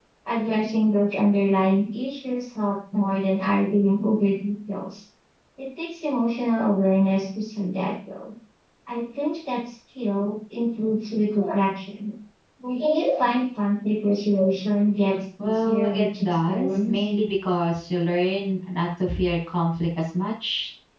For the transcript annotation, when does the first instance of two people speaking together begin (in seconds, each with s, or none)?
15.4 s